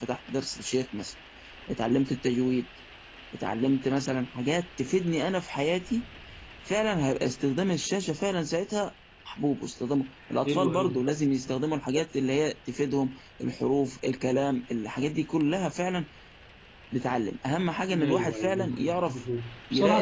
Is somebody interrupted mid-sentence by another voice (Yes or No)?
Yes